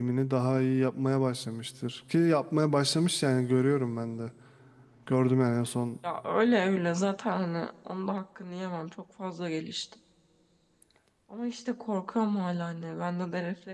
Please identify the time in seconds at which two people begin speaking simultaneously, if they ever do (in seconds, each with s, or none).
none